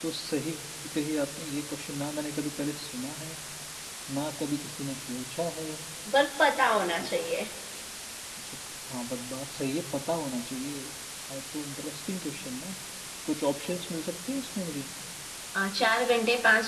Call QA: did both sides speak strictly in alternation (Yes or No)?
Yes